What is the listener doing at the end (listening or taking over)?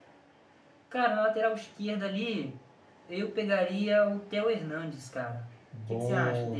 taking over